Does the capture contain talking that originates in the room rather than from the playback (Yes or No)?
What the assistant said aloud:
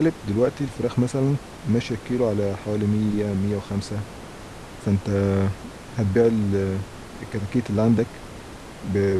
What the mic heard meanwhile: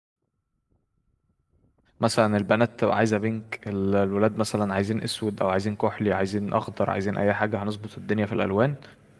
Yes